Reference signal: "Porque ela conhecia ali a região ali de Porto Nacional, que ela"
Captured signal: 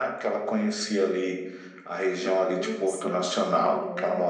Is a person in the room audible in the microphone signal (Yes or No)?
Yes